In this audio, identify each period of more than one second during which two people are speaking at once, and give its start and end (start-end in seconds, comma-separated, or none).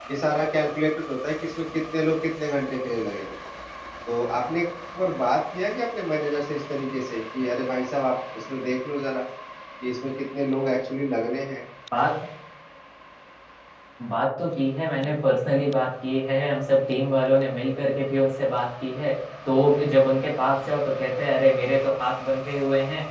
none